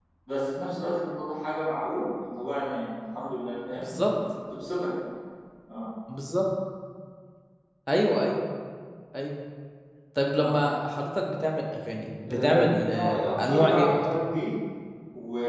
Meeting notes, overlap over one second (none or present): present